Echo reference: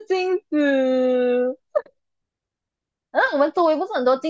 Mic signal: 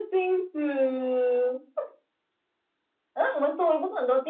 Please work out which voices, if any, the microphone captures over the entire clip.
echo only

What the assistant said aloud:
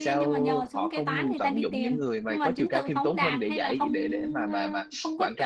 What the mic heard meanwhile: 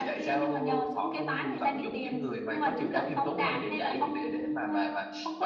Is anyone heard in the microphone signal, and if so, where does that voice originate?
echo only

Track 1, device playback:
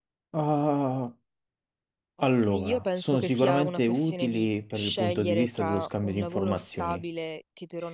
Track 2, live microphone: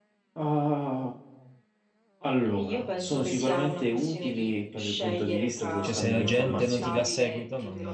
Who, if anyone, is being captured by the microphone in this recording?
both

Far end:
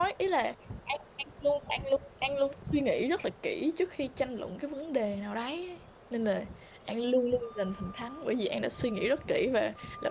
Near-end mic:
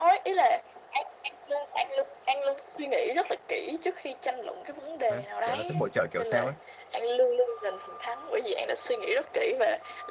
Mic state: both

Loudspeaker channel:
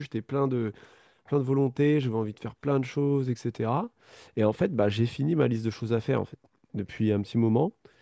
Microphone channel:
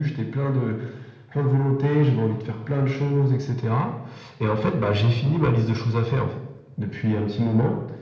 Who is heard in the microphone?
echo only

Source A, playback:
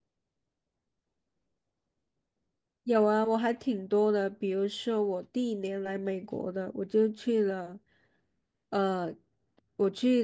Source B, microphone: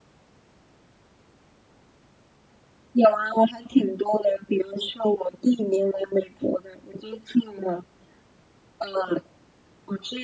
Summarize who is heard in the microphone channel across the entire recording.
echo only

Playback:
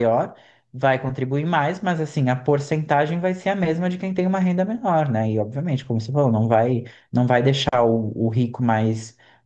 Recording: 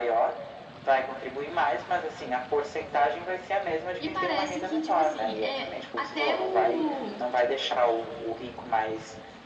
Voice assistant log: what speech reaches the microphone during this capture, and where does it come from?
both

